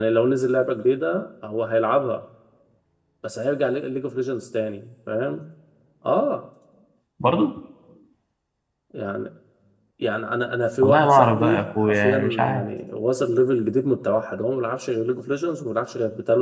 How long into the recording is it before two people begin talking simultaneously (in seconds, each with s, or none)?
10.8 s